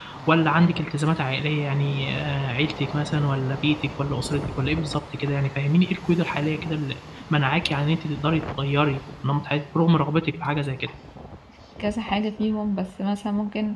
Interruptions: none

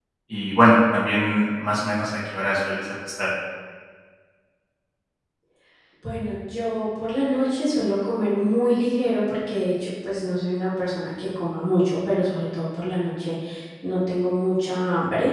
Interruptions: none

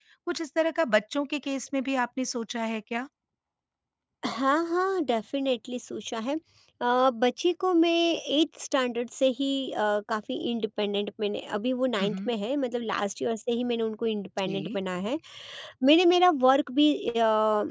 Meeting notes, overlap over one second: none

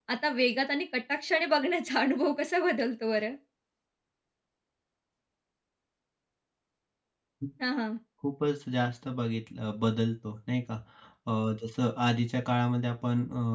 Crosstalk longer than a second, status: none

